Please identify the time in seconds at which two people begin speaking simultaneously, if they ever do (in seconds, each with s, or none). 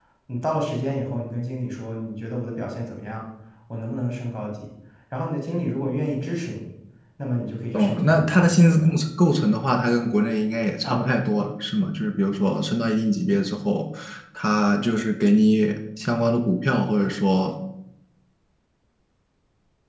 7.7 s